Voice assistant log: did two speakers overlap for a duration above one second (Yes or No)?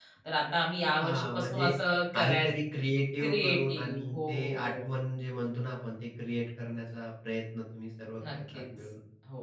Yes